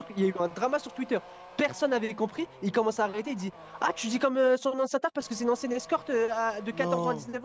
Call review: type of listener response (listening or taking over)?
listening